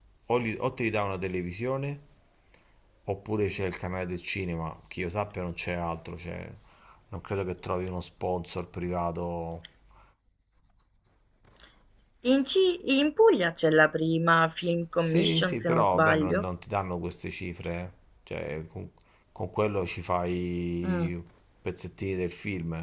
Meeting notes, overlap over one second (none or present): present